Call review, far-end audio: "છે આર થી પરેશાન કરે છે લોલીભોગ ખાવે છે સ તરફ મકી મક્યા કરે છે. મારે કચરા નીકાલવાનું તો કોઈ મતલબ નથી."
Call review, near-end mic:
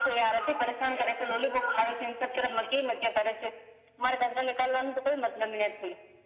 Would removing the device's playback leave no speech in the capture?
Yes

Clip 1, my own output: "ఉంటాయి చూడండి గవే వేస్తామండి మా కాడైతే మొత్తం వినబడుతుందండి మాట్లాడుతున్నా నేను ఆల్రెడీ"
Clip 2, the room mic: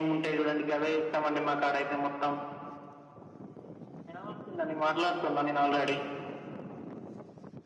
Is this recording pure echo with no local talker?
Yes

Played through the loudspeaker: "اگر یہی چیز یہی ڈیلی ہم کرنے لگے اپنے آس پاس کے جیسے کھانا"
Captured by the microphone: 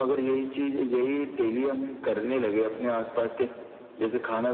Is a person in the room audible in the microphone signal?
No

